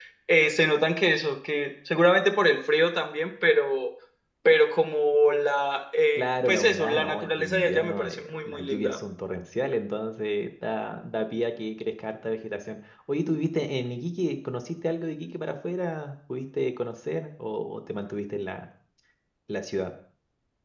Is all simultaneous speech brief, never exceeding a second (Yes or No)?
No